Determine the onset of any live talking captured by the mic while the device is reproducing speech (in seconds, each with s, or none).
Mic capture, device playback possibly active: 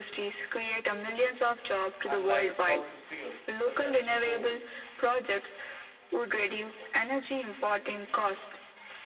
2.0 s